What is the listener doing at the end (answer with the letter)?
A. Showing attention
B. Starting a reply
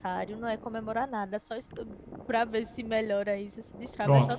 A